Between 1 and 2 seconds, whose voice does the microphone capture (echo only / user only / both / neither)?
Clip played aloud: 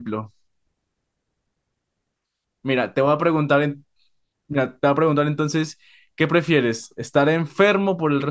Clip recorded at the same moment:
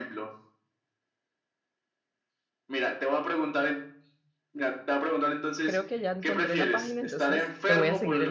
neither